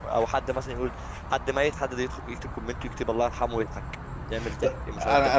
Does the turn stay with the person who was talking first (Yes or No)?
No